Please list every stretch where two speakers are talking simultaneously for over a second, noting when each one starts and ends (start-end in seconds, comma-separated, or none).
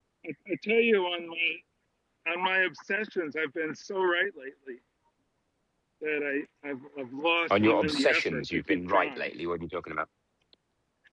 7.5-9.4